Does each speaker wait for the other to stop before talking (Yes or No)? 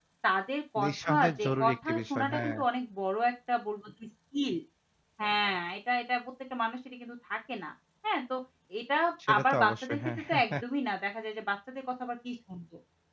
No